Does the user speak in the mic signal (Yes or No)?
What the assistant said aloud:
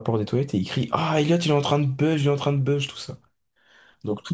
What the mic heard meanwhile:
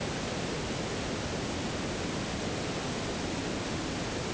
No